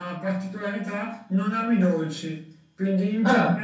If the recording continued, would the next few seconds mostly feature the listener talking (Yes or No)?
No